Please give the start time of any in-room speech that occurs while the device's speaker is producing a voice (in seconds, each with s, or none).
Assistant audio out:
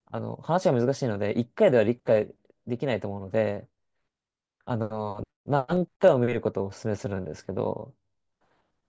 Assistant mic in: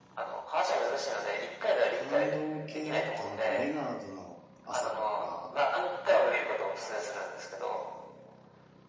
1.9 s